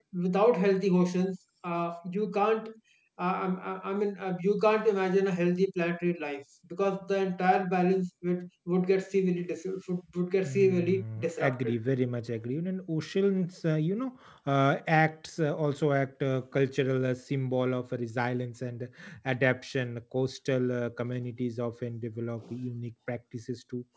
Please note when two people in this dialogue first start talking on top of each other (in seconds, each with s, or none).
10.4 s